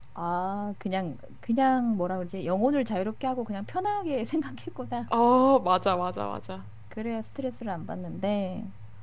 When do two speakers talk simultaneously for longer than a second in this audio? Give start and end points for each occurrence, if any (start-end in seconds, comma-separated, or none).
none